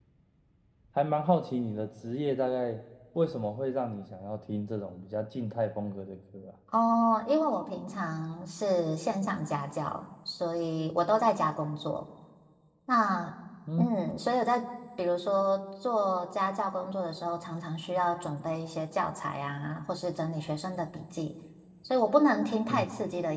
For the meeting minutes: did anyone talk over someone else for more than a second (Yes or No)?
No